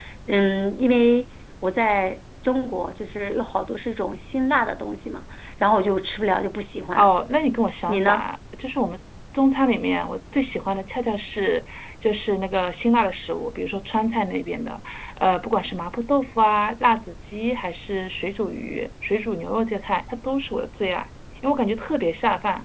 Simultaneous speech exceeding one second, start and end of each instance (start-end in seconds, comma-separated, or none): none